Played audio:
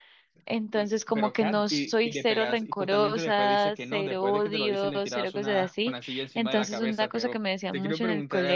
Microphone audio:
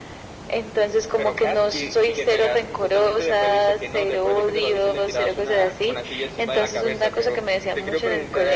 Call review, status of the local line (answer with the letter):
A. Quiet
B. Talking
A